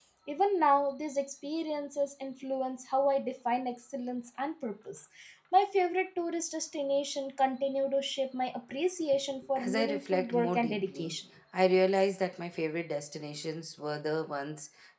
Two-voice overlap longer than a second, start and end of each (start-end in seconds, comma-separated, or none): 9.6-11.1